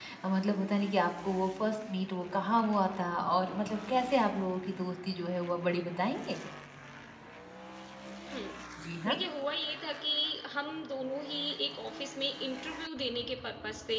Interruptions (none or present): none